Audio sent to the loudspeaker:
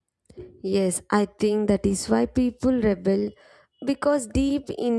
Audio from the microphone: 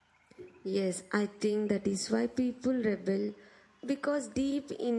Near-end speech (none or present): none